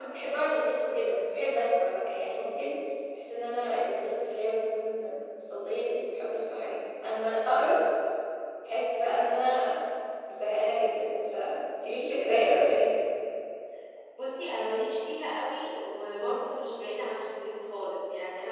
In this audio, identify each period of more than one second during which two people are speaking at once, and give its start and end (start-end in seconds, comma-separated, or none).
none